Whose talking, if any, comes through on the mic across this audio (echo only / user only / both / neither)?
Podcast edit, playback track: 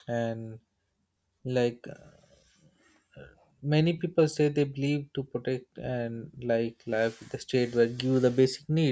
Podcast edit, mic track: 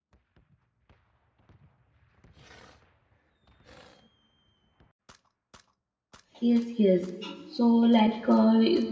user only